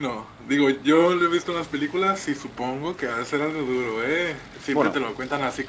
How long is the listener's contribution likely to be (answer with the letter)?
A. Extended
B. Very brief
B